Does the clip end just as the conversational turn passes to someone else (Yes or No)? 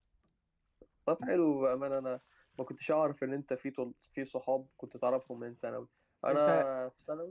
No